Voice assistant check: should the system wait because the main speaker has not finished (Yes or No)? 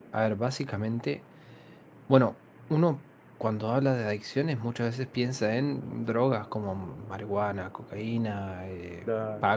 Yes